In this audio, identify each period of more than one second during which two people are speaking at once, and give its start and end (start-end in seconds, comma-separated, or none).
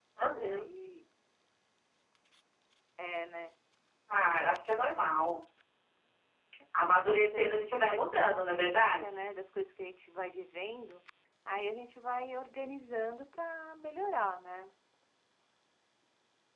6.8-9.1